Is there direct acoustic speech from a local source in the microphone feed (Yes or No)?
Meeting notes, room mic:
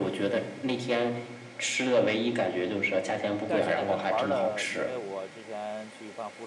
Yes